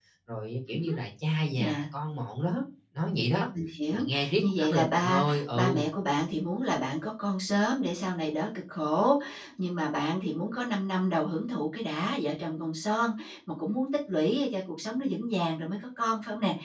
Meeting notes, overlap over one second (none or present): present